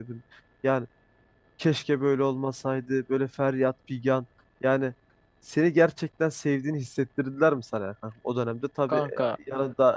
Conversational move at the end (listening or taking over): listening